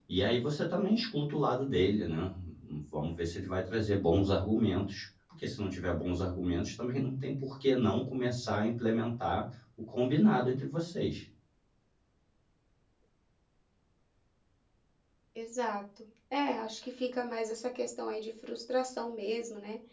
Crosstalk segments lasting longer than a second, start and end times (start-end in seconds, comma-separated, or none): none